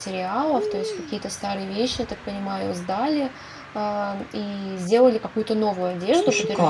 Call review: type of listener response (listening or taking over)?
listening